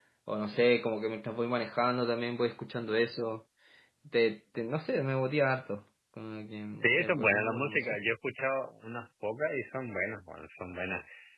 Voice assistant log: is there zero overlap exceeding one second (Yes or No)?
No